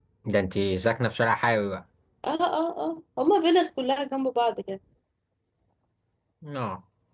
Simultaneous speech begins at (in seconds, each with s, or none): none